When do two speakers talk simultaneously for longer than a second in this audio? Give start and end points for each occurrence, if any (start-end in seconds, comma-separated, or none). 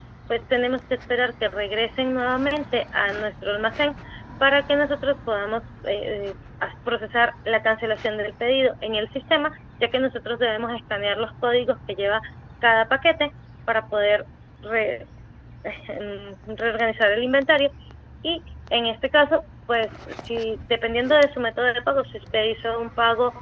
none